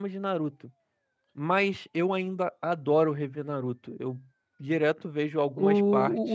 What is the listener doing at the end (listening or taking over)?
taking over